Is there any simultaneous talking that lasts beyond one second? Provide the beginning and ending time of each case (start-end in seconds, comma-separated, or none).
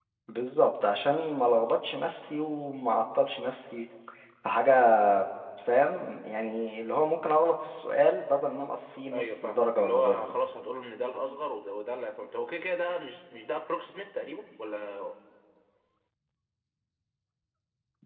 9.1-10.3